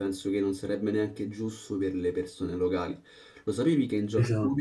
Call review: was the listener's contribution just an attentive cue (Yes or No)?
Yes